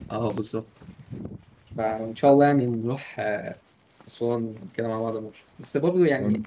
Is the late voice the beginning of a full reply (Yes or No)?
No